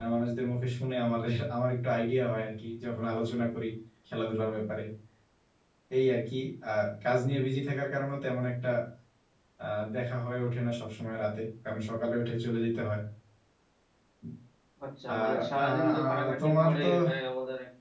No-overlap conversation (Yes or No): No